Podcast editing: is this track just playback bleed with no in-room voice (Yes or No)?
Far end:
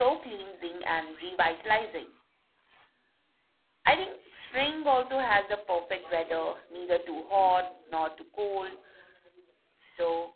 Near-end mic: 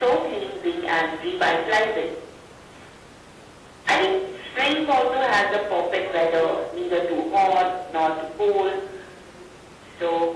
Yes